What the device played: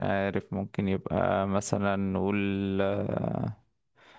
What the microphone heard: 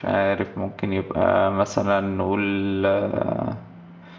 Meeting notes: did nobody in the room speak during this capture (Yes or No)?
Yes